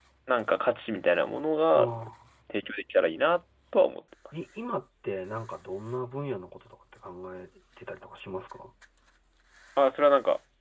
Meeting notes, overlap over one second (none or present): none